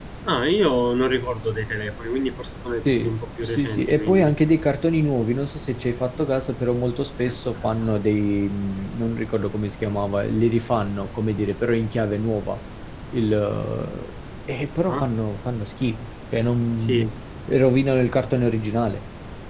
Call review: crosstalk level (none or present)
present